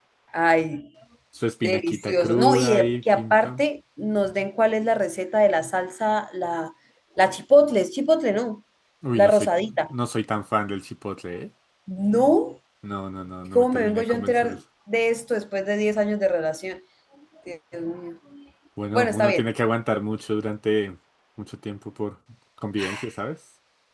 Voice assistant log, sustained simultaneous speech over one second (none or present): present